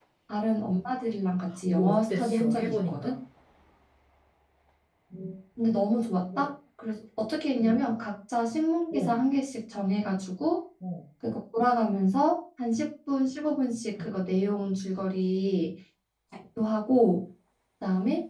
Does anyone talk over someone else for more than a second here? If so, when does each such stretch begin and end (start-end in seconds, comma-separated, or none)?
1.7-3.2